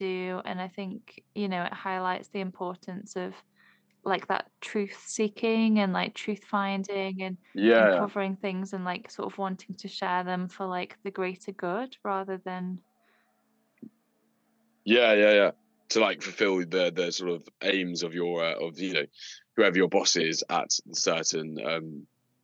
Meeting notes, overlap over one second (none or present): none